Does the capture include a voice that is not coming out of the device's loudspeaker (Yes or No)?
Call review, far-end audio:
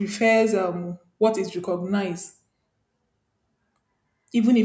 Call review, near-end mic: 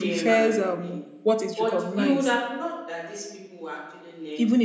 Yes